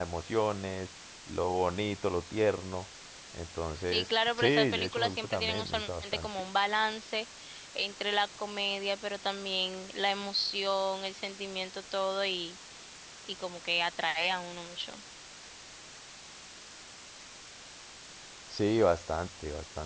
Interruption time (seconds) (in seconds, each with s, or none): 3.9 s